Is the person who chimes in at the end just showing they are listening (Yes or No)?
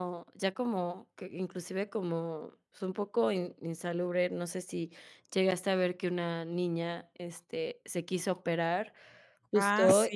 Yes